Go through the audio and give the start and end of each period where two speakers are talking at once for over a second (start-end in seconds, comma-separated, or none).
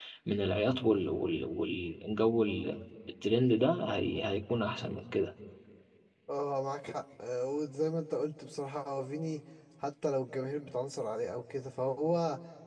none